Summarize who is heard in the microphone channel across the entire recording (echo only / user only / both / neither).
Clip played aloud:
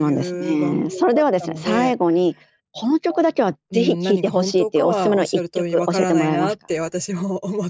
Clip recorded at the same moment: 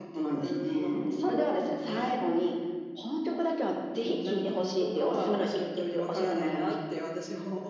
echo only